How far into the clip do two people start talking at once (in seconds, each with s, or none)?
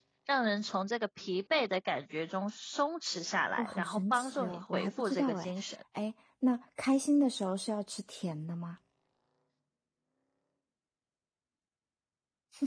3.6 s